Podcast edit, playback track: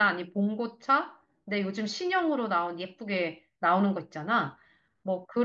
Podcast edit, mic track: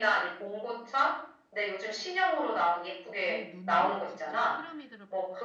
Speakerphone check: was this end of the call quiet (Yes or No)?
No